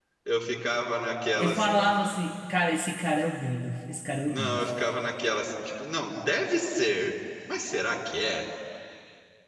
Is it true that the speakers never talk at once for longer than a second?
Yes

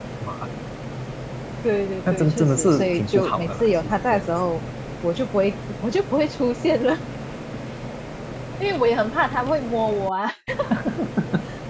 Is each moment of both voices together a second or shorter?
No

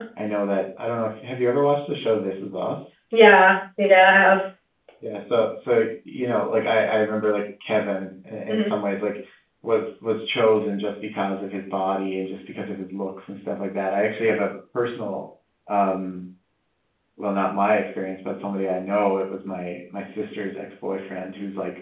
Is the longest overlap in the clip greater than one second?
No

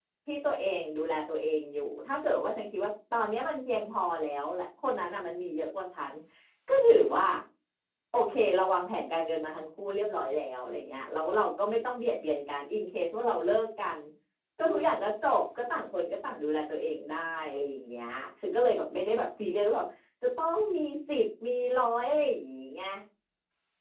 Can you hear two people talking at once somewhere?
No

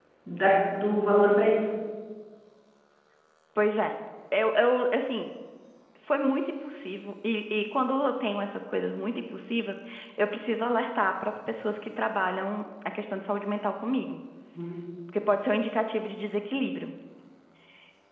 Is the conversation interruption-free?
Yes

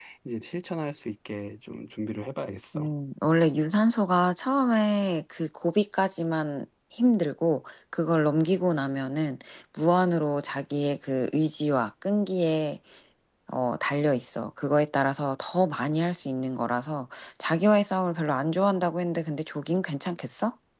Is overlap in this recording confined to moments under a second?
Yes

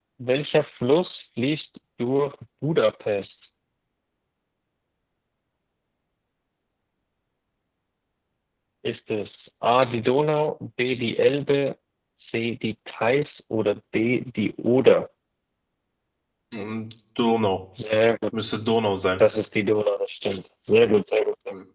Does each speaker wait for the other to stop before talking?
Yes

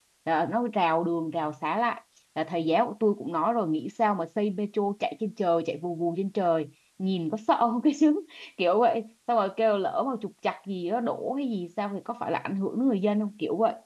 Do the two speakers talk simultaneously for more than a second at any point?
No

